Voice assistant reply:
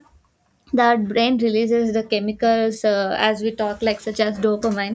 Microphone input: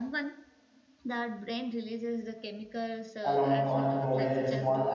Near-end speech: present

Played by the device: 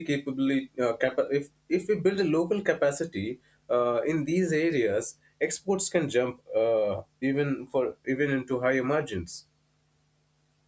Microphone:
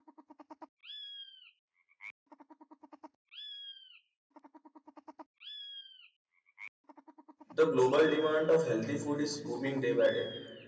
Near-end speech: present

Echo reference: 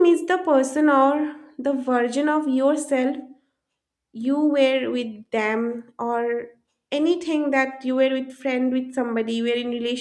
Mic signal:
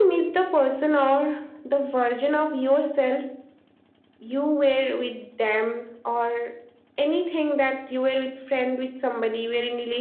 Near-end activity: none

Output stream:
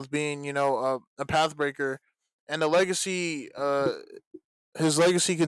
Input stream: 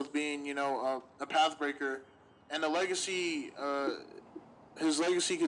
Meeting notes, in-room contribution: none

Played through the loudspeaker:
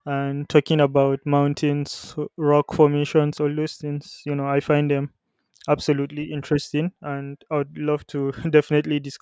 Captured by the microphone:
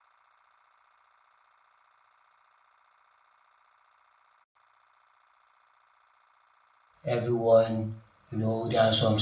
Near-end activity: present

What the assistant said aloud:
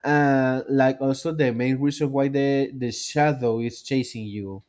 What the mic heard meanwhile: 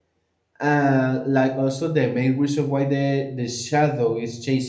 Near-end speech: none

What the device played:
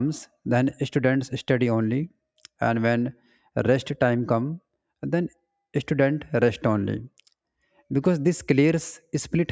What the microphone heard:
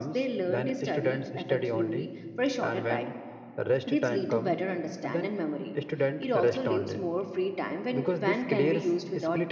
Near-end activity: present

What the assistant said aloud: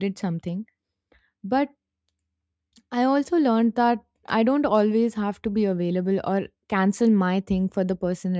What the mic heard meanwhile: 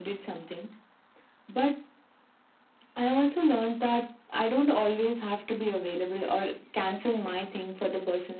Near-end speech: none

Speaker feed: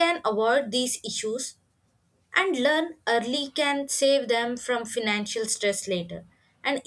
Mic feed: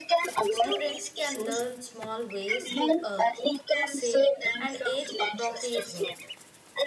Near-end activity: present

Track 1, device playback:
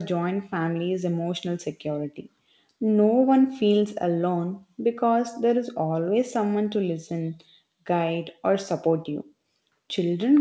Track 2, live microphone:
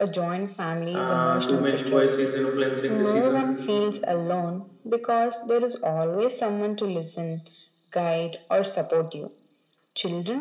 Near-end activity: present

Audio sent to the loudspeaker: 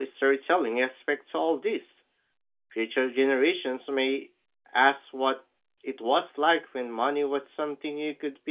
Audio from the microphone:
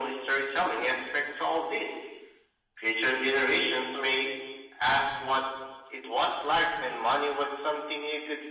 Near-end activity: none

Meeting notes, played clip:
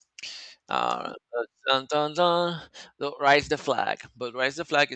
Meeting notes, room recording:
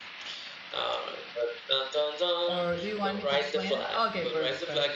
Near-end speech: present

